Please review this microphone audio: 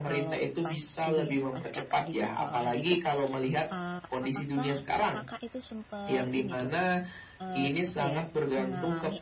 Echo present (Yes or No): Yes